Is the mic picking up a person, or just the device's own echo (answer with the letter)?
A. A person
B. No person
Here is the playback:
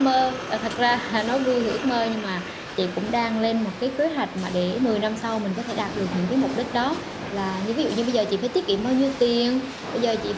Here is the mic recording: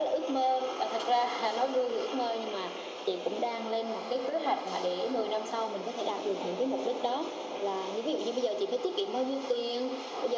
B